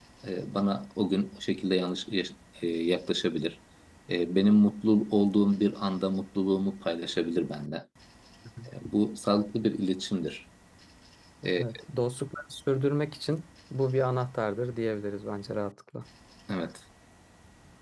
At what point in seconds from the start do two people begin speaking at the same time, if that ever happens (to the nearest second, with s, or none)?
none